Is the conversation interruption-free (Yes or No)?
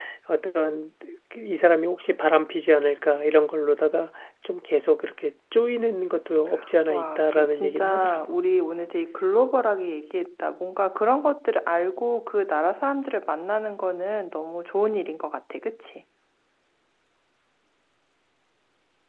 No